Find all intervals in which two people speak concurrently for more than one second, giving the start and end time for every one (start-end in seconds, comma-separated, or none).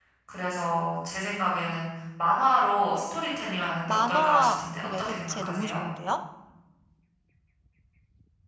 3.9-5.8